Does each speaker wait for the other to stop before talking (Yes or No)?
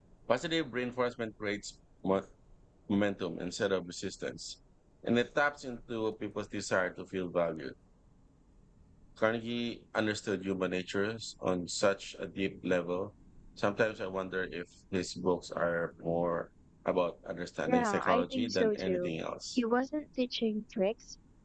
No